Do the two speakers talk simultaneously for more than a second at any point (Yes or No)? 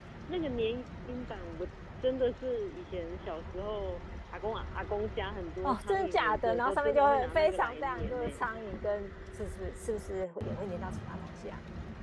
Yes